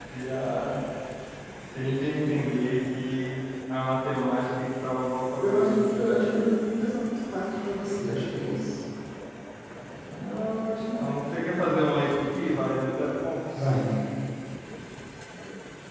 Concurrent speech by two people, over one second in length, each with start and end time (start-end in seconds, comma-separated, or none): none